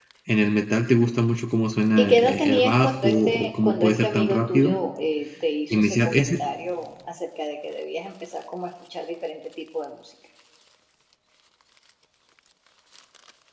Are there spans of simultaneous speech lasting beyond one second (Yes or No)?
Yes